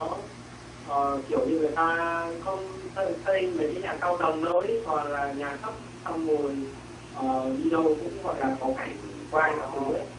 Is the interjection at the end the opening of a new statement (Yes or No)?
No